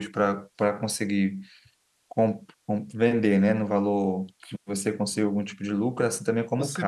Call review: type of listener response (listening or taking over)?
taking over